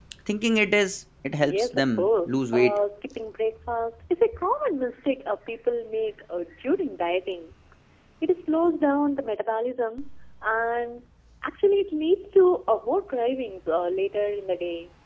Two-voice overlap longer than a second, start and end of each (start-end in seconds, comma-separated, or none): 1.5-2.8